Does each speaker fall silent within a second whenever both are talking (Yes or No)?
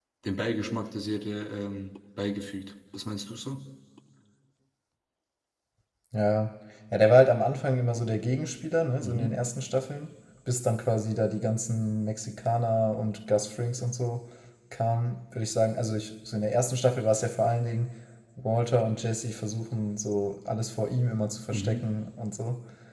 Yes